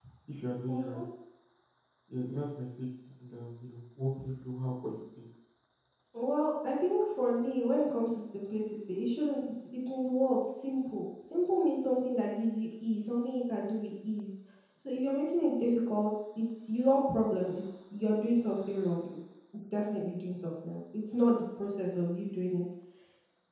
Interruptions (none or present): none